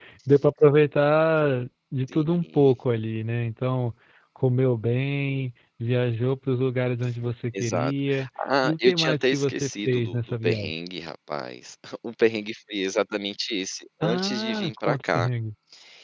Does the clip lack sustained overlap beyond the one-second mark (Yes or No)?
No